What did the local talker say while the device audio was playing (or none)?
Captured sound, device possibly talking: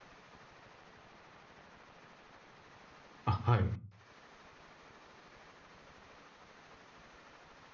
あ、はい。